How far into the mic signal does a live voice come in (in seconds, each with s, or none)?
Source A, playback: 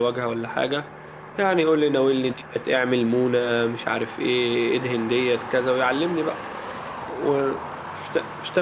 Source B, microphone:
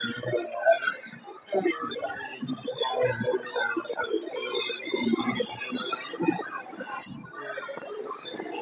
none